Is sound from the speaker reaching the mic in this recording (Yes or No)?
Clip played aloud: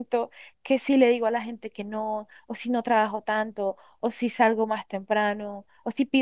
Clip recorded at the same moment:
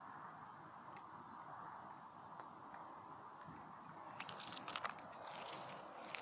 No